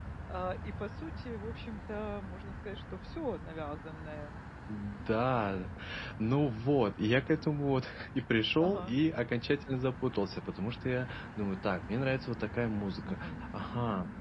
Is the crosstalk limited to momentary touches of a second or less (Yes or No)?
Yes